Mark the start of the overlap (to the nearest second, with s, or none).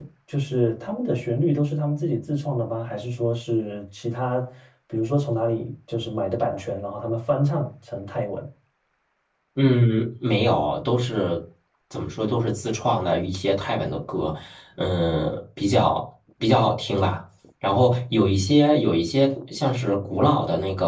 none